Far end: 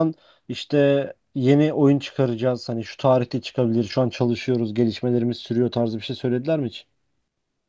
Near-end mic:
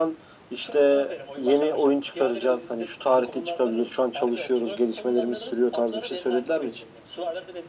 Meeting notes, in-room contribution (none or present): present